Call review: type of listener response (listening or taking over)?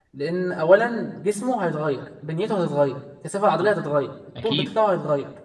listening